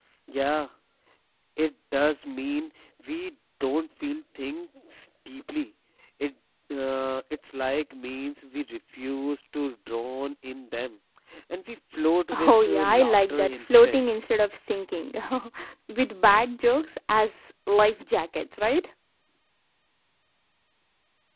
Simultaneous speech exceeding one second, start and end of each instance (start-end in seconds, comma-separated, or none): 12.3-14.0